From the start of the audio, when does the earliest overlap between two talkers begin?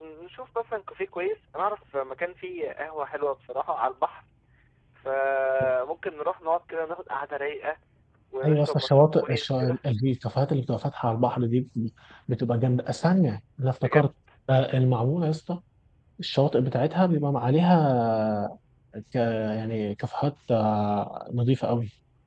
8.4 s

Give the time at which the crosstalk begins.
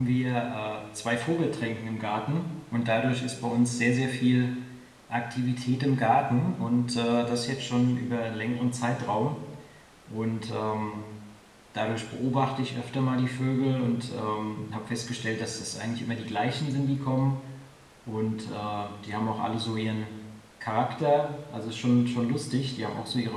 none

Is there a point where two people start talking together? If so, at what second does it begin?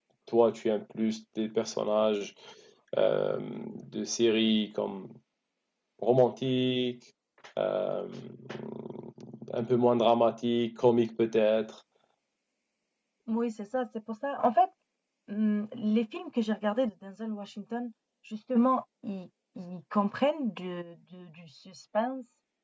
none

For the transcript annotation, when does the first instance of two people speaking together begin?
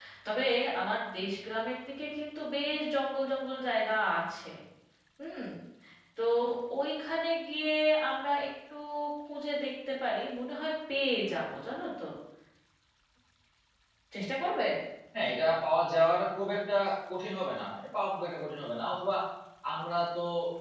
none

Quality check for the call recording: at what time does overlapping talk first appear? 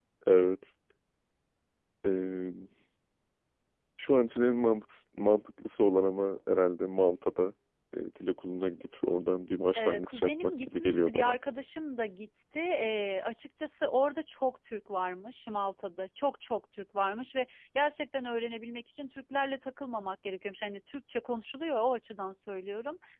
9.8 s

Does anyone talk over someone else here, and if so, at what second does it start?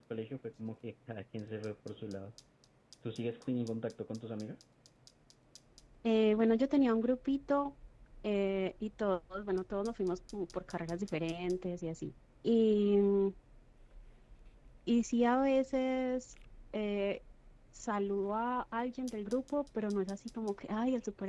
none

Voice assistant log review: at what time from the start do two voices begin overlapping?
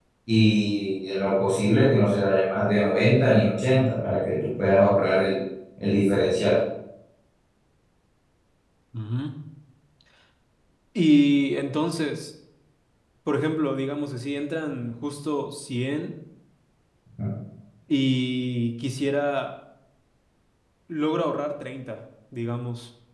none

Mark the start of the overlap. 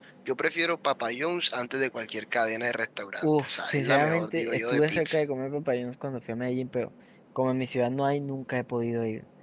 3.2 s

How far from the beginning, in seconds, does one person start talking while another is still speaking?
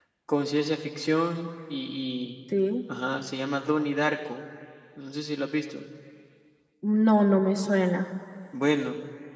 none

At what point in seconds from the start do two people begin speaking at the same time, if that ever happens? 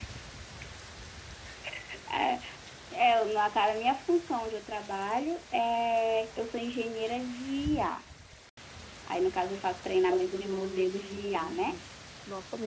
10.4 s

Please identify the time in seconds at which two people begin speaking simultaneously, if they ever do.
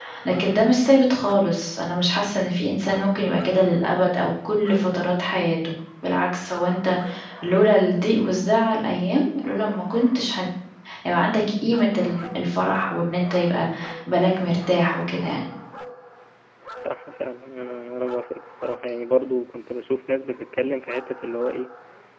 none

